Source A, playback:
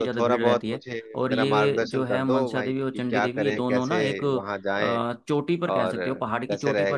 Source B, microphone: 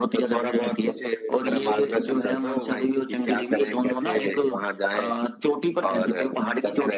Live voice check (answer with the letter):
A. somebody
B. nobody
B